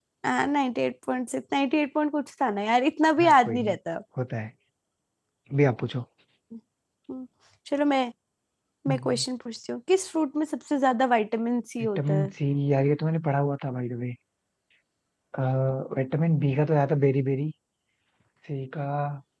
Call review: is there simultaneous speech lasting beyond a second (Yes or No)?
No